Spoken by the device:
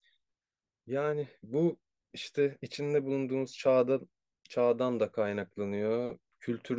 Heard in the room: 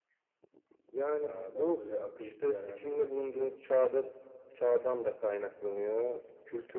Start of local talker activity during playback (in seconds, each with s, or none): 1.2 s